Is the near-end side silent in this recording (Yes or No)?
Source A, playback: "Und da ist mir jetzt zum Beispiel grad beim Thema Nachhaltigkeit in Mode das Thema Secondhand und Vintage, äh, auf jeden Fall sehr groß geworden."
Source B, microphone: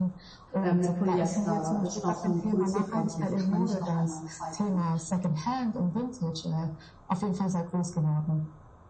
No